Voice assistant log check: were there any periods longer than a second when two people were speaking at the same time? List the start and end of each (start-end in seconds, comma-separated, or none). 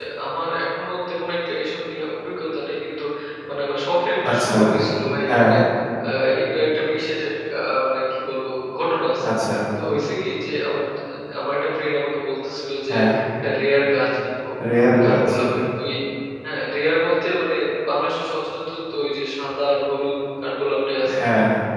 none